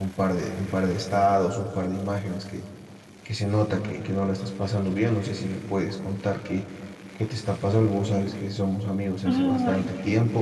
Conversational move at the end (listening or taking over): listening